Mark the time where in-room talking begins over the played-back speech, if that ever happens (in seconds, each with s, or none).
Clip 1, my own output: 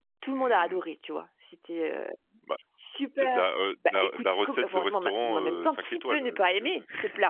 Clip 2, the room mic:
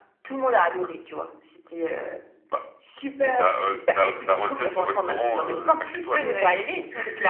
6.2 s